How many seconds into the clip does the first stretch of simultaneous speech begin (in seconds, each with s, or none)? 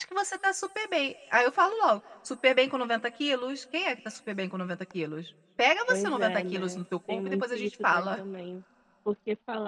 5.9 s